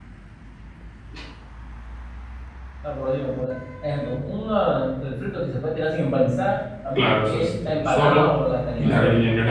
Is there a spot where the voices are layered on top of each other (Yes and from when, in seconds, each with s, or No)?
Yes, from 7.0 s